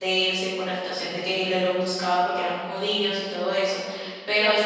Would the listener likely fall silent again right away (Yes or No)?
Yes